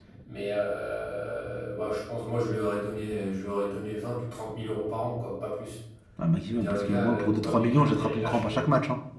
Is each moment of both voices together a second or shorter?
No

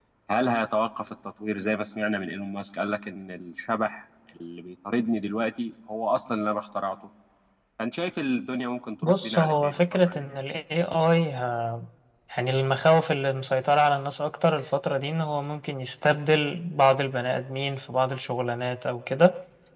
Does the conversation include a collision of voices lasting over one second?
Yes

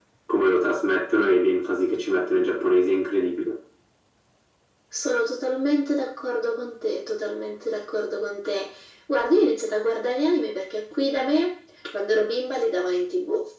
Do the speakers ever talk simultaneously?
No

